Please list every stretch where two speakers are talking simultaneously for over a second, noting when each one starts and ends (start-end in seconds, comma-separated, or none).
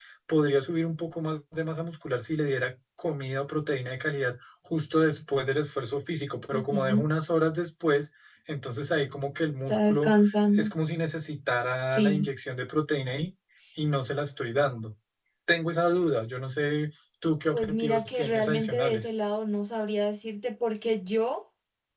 17.5-19.1